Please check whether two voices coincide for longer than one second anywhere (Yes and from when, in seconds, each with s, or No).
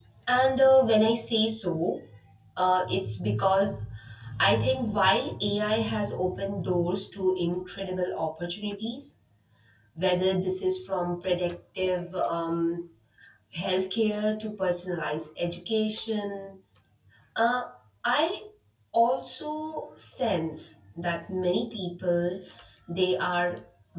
No